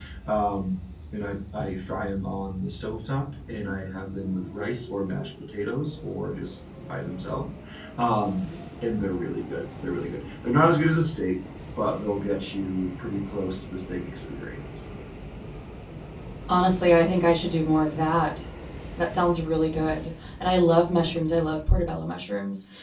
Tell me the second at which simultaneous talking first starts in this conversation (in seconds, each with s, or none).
none